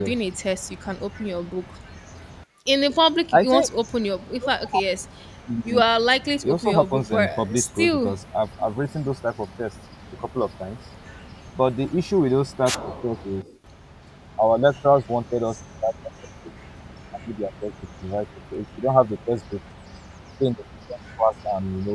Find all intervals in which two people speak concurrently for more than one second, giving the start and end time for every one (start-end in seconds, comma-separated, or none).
6.4-8.1